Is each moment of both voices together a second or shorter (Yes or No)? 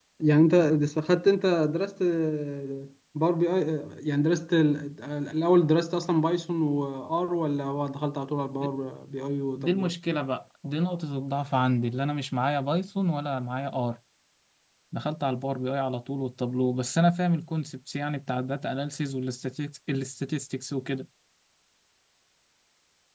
Yes